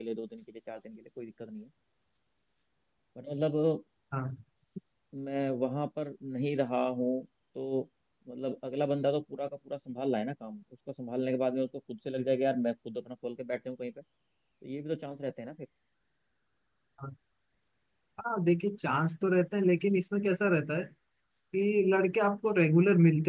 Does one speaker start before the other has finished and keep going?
No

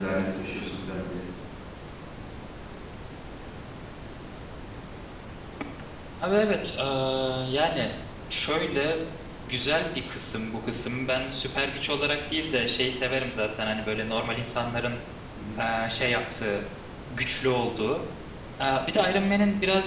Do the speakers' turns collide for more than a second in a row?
No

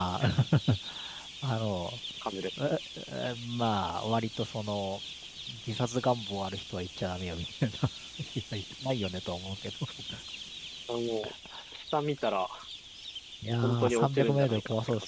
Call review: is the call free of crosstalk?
No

